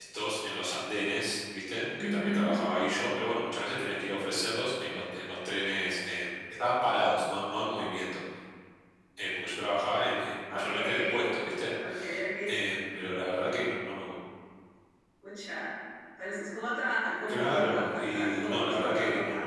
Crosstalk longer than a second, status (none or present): present